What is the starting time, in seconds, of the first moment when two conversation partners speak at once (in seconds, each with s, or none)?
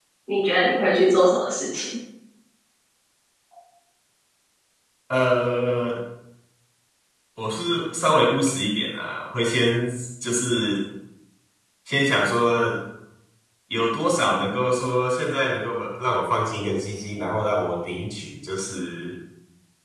none